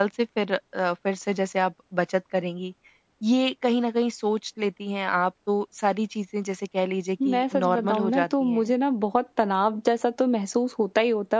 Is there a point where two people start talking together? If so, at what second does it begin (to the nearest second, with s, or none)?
7 s